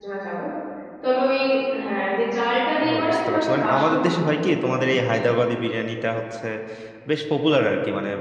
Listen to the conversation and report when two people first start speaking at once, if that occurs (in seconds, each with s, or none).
2.8 s